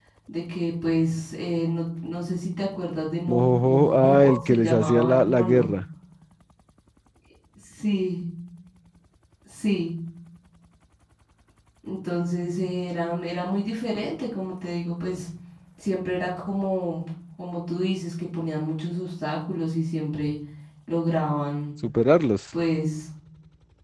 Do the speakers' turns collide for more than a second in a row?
Yes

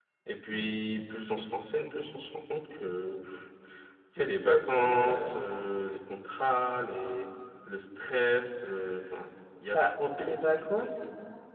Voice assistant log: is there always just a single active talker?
No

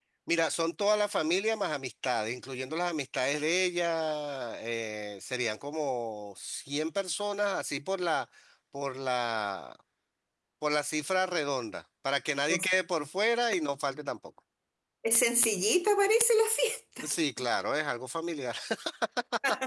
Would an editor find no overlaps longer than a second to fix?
Yes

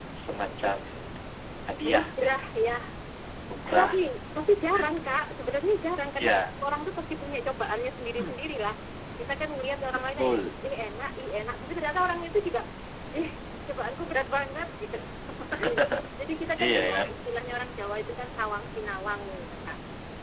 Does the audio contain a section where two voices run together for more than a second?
No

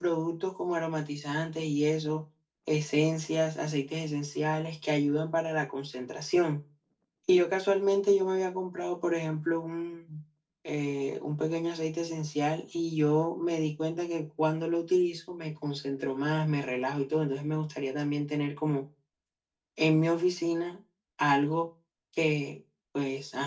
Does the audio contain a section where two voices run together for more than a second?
No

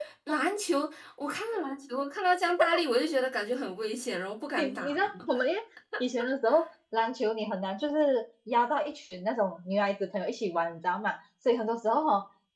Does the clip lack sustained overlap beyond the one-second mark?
Yes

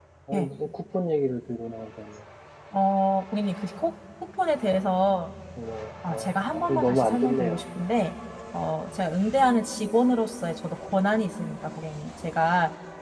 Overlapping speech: Yes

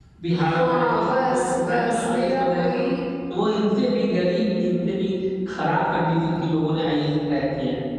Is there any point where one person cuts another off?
Yes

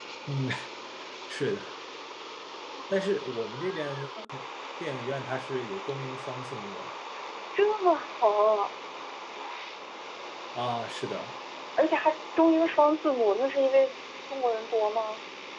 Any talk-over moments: No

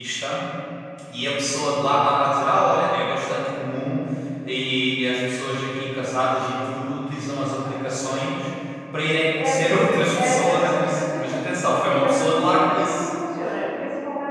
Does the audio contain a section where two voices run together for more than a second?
Yes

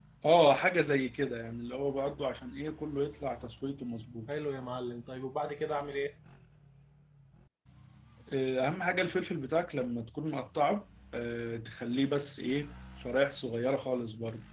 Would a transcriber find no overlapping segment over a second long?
Yes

